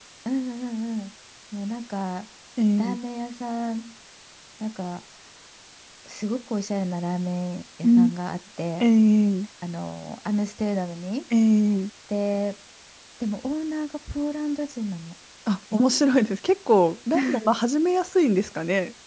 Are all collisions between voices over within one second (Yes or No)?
Yes